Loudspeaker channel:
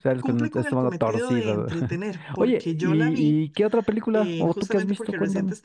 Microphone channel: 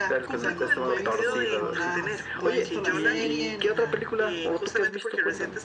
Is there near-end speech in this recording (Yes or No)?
Yes